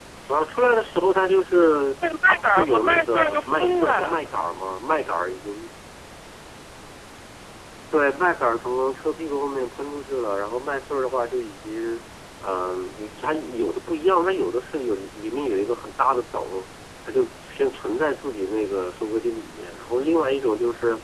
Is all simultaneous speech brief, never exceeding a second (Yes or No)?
No